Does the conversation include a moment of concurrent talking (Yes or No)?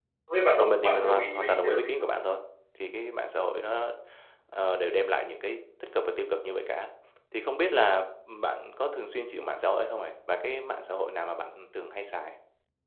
Yes